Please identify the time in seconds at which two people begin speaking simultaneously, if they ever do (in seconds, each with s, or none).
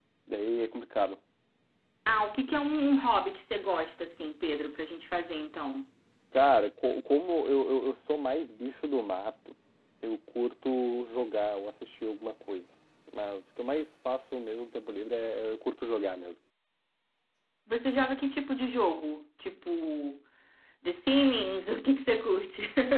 none